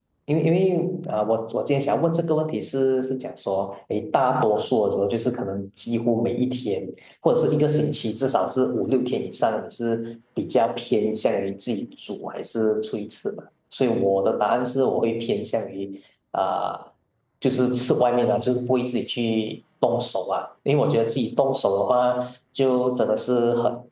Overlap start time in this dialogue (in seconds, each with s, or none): none